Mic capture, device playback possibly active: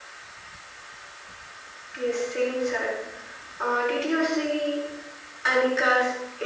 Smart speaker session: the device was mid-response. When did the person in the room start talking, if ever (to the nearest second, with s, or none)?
none